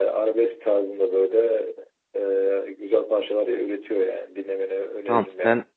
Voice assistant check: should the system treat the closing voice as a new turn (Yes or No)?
Yes